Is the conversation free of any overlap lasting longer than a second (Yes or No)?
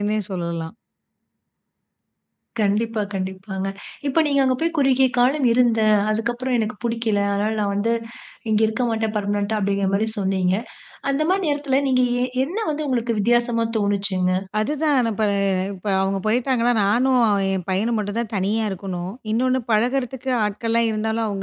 Yes